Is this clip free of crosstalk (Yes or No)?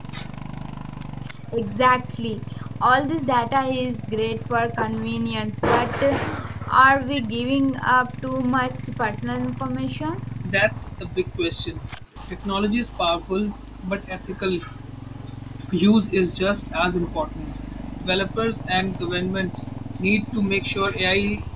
Yes